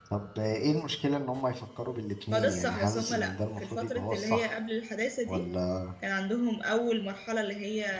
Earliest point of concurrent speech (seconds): 2.3 s

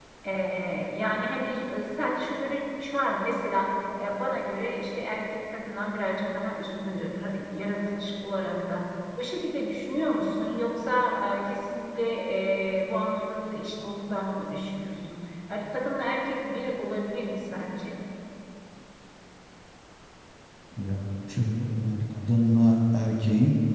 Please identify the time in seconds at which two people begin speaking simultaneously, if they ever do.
none

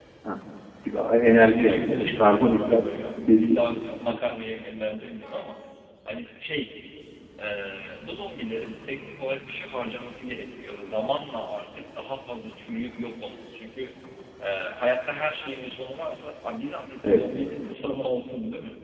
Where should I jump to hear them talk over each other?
1.3 s

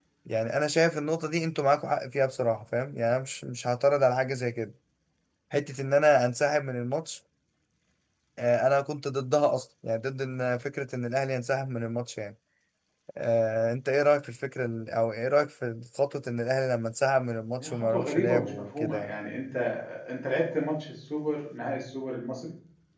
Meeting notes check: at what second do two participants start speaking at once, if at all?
17.6 s

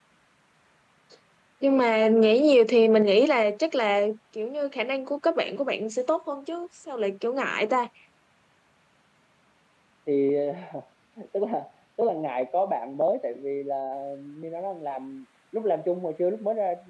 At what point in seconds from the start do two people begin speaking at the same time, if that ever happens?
none

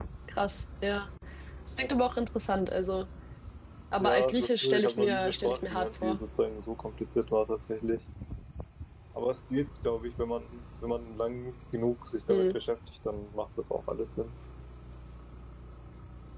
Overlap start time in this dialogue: 4.0 s

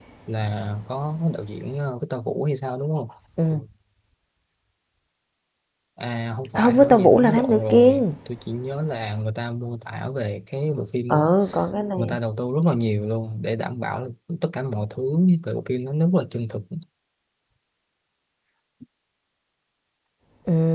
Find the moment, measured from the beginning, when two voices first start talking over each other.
6.6 s

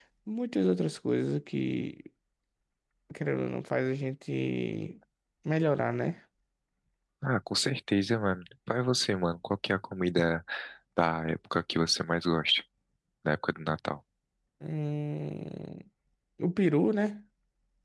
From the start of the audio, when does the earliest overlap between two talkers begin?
none

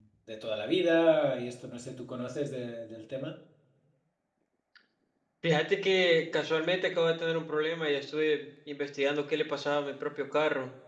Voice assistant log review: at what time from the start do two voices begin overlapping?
none

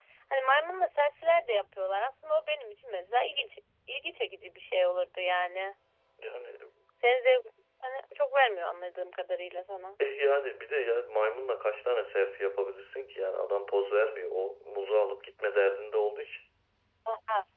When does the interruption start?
none

